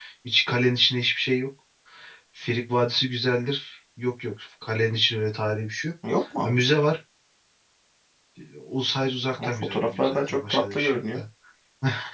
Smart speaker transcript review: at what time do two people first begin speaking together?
9 s

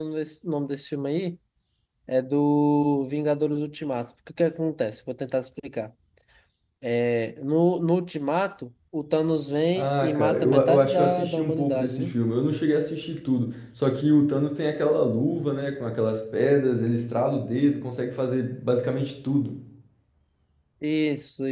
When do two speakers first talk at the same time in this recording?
10 s

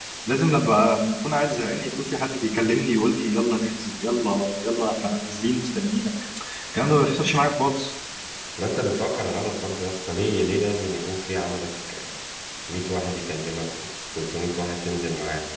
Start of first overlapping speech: none

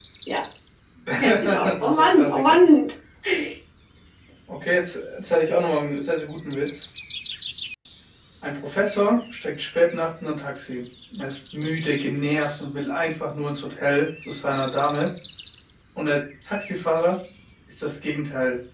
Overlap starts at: 1 s

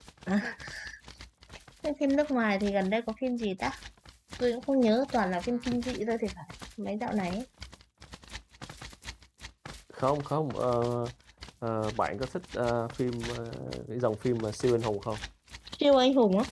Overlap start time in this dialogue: none

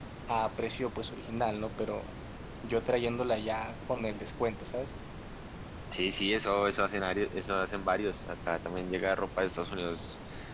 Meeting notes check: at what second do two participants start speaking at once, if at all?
none

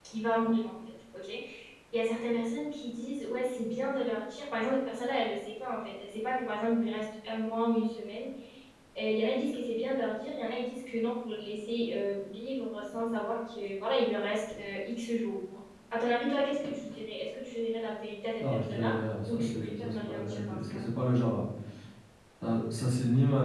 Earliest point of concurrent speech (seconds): 18 s

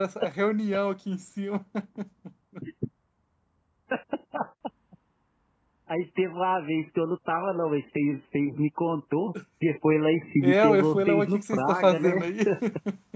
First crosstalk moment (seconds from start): 10 s

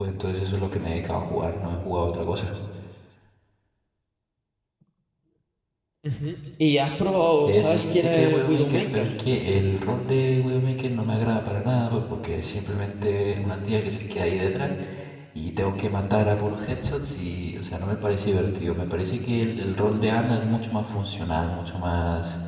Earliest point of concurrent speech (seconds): 7 s

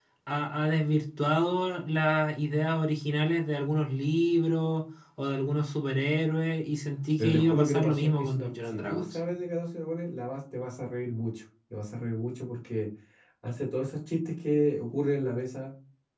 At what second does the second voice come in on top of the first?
7 s

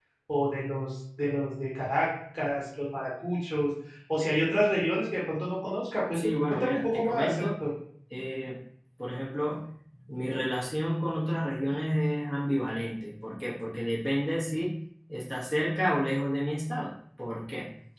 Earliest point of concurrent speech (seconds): 6 s

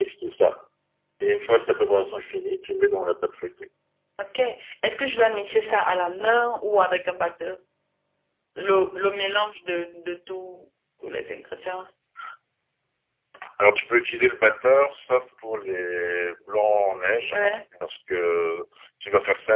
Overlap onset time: none

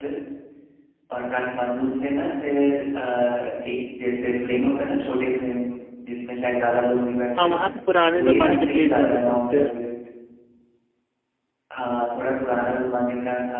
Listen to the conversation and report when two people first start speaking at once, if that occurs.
8 s

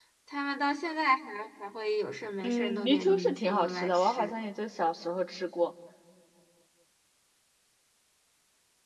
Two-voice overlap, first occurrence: 2 s

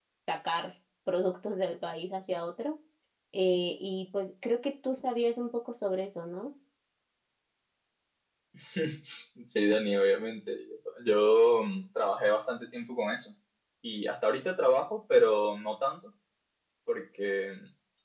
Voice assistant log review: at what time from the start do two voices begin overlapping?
none

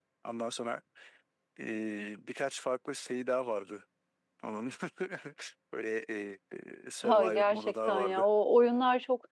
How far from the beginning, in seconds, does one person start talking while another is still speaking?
7 s

